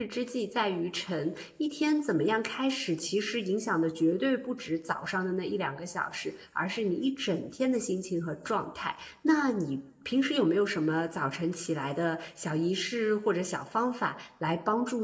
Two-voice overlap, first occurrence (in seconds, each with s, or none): none